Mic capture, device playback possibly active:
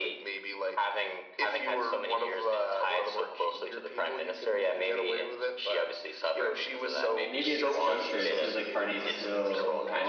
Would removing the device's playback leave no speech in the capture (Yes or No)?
No